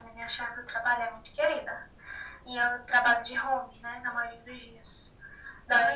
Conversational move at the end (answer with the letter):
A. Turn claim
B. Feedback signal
B